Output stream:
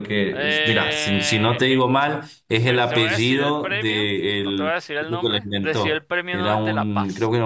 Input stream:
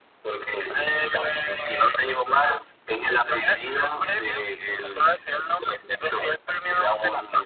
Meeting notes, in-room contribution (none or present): none